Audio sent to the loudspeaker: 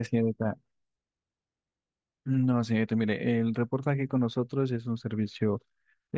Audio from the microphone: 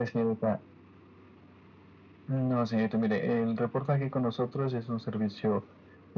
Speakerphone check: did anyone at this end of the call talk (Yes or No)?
No